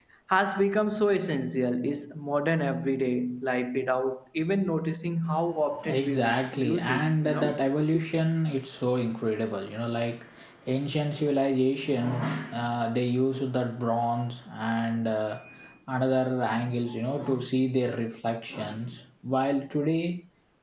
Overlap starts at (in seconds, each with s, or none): 5.8 s